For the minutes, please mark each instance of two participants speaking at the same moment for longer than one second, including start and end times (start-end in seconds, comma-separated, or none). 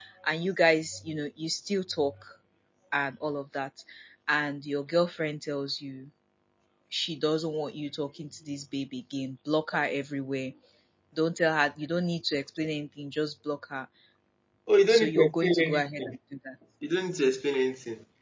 14.9-16.1